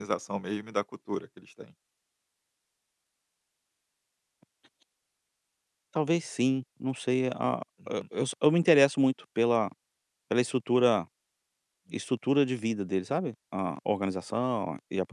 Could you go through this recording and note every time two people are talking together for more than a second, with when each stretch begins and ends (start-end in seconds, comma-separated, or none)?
none